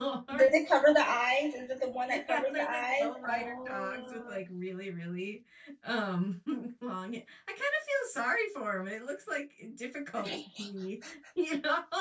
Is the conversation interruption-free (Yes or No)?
No